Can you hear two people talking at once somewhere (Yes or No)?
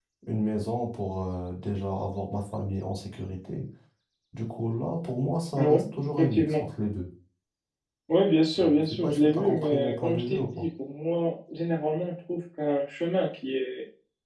Yes